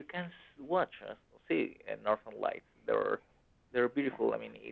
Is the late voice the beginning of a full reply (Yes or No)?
No